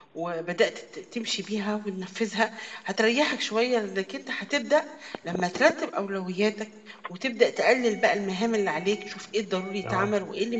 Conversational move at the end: listening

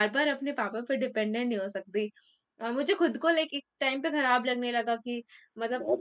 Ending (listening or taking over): listening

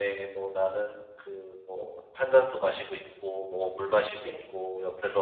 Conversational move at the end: listening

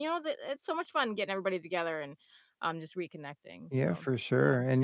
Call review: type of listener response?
taking over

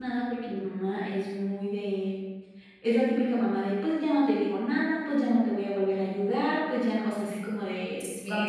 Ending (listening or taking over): taking over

